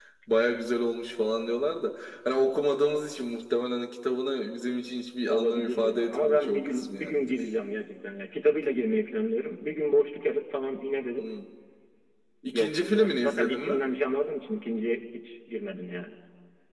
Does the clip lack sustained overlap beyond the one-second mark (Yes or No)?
No